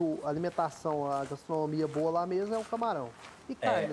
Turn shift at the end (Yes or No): Yes